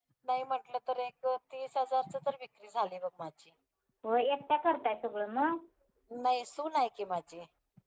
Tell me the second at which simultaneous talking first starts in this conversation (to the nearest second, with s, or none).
none